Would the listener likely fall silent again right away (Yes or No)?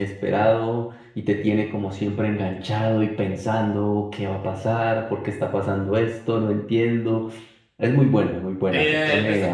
No